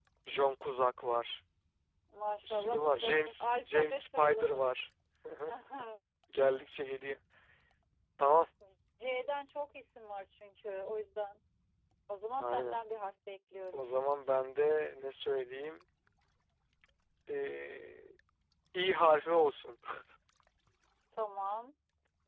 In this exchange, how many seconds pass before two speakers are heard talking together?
2 s

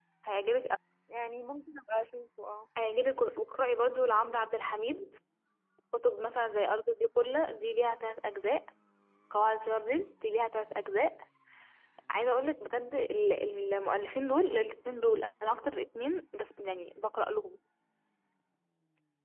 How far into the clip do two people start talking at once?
none

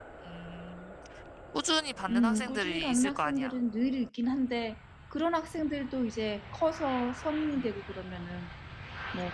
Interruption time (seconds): 2 s

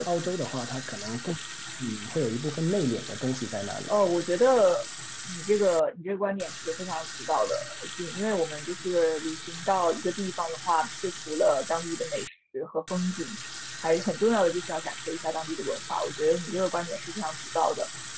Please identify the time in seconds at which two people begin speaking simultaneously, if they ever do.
none

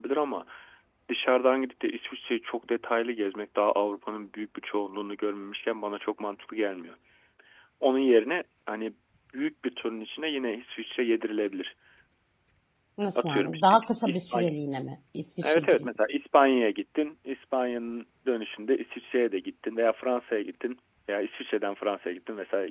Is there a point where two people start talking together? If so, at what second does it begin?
13 s

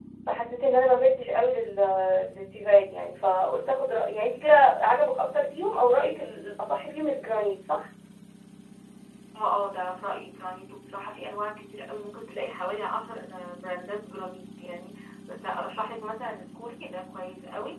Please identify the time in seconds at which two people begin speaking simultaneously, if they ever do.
none

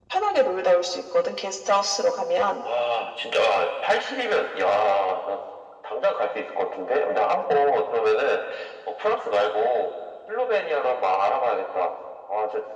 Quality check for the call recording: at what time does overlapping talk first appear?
none

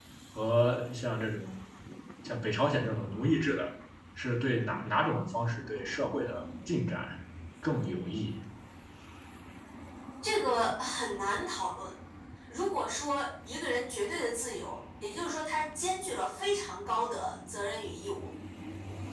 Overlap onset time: none

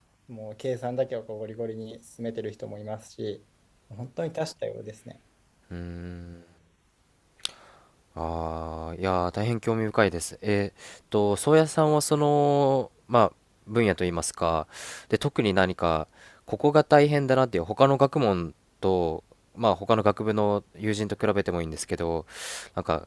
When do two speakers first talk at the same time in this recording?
none

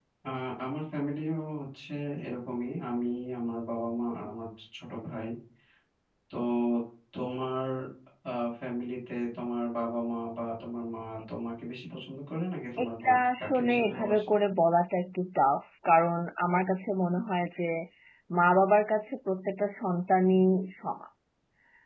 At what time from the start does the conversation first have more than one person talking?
13 s

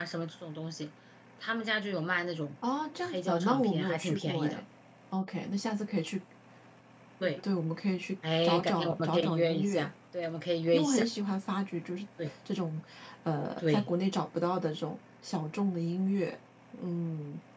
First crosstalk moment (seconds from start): 3 s

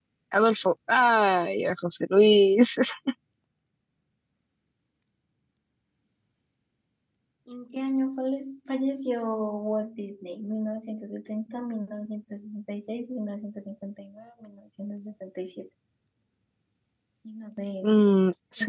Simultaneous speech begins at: none

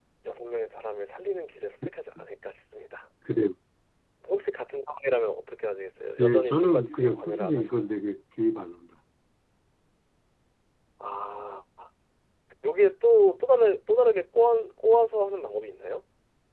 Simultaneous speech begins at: 6 s

